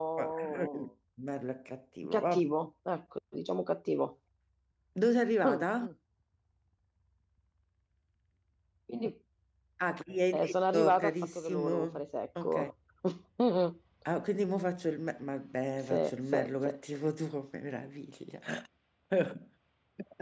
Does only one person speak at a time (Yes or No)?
No